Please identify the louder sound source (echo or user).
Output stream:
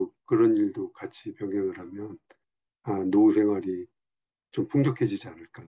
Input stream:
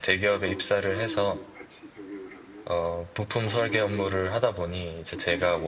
user